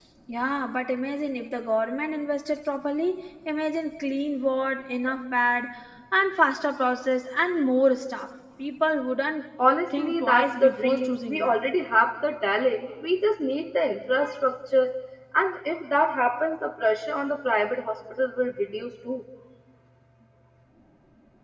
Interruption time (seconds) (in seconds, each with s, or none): 9.9 s